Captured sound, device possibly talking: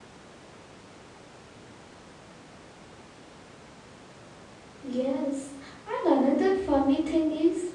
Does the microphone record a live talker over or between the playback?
Yes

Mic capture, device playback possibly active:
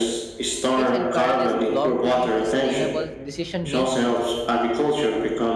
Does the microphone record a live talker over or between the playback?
Yes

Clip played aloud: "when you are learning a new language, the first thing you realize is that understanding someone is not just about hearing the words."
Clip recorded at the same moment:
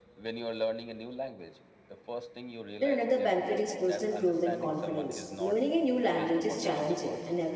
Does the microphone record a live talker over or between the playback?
Yes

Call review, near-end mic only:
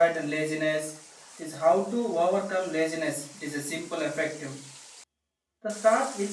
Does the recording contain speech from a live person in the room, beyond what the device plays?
Yes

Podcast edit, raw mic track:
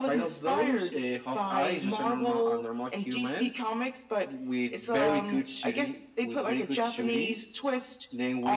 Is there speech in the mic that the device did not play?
No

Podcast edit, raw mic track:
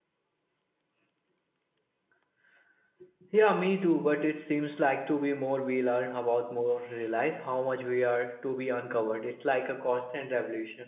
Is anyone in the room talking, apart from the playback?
Yes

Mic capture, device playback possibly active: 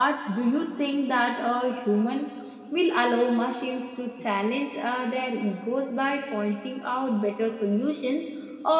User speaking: Yes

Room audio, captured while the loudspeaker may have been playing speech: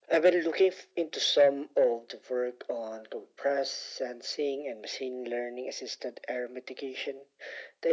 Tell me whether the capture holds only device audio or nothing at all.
Yes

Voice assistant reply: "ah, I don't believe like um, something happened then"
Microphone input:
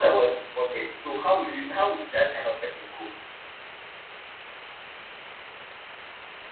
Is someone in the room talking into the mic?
Yes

